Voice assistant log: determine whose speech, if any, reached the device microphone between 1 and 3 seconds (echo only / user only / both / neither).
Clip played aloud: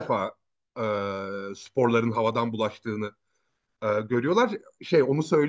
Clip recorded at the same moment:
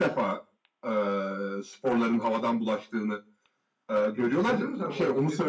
echo only